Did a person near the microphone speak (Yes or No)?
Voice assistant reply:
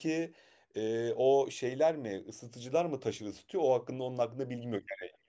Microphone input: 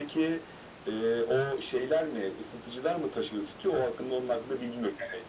No